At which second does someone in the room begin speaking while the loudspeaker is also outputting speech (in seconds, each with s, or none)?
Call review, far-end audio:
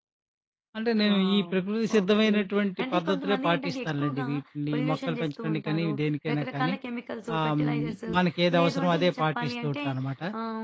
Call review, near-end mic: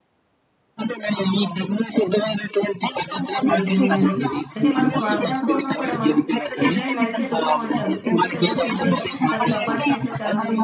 3.5 s